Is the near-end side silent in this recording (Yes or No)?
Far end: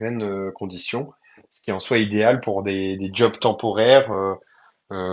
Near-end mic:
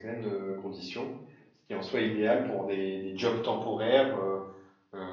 Yes